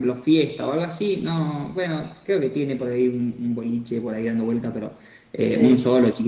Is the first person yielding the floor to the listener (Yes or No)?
No